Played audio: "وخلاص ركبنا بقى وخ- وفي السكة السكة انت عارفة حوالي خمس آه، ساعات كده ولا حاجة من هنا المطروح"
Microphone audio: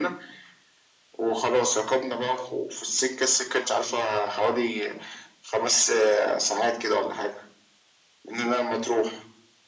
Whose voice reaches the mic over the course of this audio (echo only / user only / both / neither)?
echo only